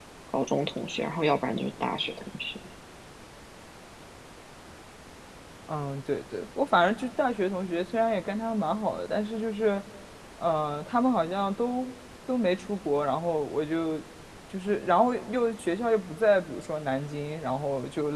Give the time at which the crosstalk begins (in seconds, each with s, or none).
none